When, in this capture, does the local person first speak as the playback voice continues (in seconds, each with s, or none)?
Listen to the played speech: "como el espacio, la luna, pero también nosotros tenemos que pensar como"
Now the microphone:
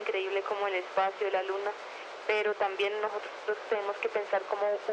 none